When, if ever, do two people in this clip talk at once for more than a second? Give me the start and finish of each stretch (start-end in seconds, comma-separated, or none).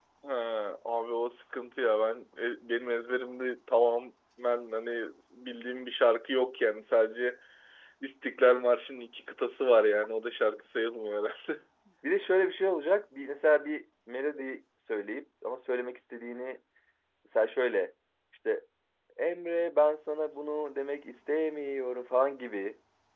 none